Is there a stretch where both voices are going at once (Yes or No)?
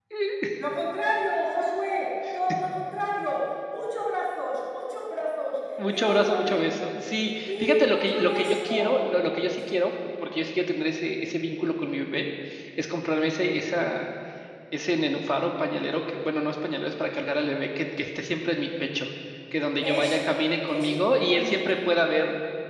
Yes